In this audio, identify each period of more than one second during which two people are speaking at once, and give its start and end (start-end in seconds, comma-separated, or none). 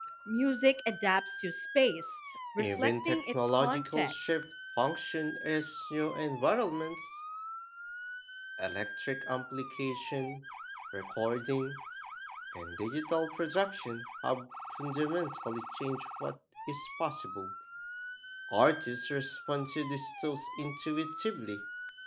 2.6-4.4